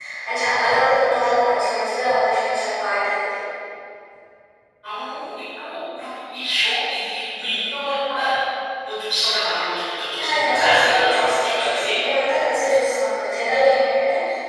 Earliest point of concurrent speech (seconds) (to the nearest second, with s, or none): 10 s